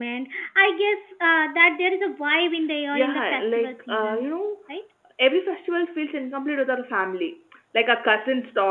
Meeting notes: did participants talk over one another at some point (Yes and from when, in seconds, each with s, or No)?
Yes, from 2.9 s